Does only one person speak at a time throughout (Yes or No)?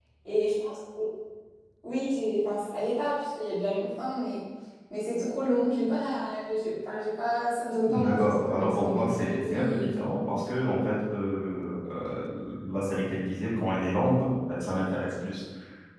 No